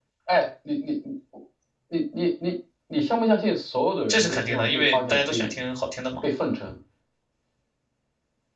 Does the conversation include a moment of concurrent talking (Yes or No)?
Yes